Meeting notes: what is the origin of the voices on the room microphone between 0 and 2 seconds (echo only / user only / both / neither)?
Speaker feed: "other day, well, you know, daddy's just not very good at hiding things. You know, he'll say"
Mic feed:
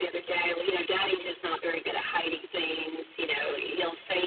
echo only